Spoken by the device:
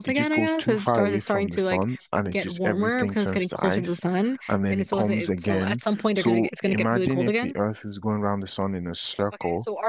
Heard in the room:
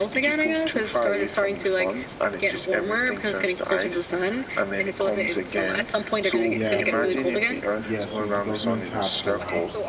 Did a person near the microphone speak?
Yes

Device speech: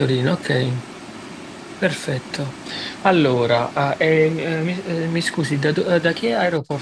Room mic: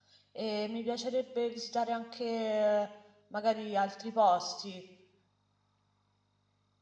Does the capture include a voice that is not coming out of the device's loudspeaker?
Yes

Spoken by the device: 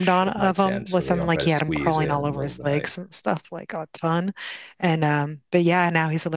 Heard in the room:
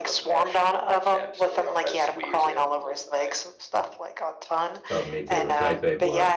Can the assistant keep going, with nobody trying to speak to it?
No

